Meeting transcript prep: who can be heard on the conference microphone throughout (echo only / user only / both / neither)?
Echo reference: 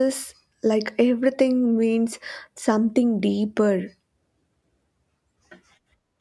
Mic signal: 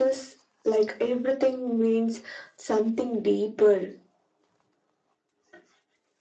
echo only